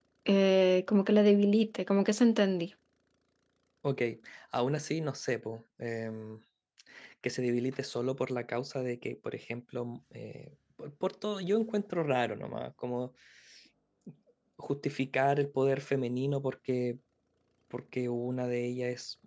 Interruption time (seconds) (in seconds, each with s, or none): none